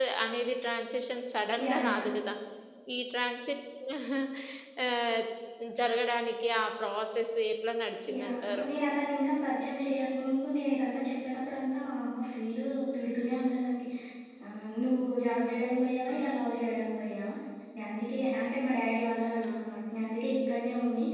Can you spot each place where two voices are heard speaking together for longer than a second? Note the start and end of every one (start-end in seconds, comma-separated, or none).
none